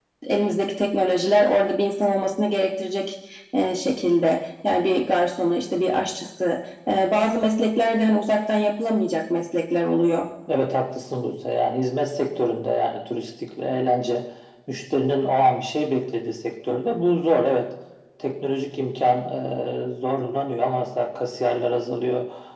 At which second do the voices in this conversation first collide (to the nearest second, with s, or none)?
none